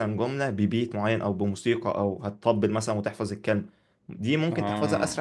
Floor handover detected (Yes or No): No